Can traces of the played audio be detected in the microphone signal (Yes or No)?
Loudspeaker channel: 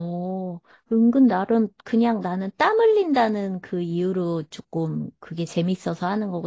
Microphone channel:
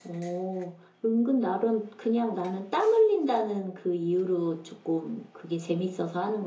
Yes